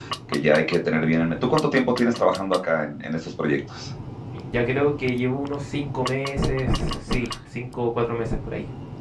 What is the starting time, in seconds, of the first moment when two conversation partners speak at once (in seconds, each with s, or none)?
none